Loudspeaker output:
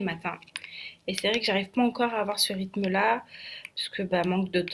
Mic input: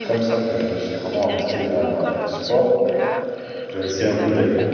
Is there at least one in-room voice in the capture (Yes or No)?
Yes